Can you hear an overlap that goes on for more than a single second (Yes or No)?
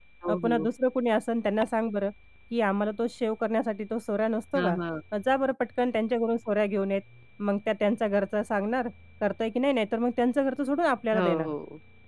No